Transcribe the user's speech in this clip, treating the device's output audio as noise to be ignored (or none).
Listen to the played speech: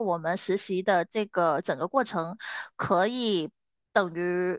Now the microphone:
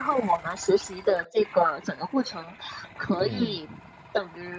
嗯。